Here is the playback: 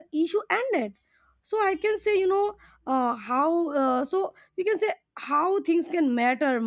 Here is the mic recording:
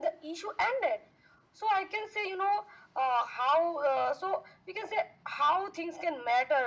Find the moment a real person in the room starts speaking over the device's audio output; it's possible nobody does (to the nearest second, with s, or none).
none